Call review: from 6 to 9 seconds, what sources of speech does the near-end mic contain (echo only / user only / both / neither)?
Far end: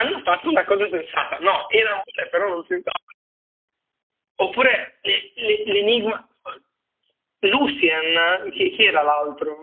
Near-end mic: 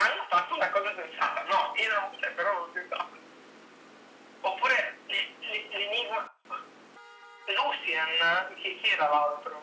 echo only